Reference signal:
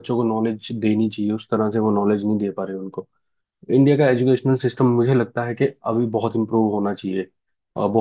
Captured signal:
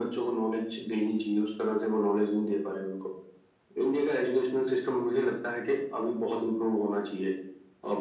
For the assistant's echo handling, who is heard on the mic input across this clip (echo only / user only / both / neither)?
echo only